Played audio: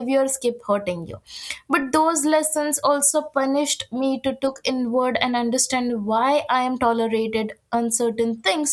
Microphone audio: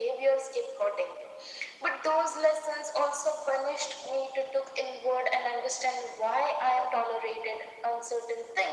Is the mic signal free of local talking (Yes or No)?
Yes